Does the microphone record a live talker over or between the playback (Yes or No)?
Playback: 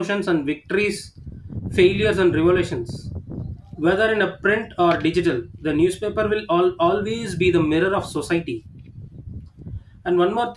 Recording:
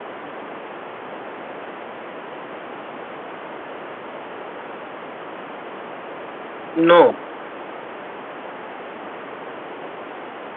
Yes